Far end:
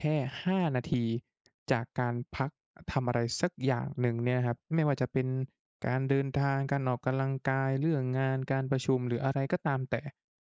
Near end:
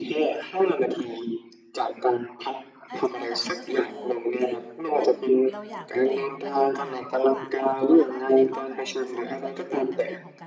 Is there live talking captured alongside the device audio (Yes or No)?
Yes